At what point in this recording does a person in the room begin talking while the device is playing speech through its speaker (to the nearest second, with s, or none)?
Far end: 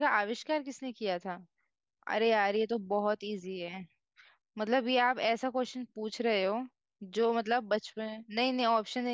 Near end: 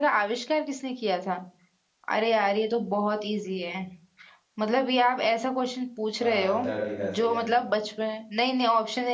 6 s